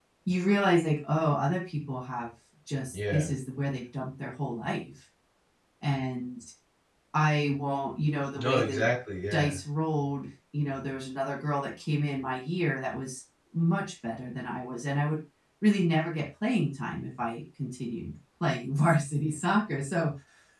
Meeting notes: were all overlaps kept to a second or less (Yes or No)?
Yes